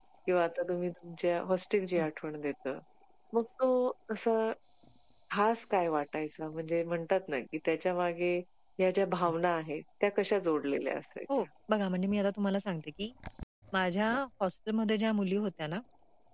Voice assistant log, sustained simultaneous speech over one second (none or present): none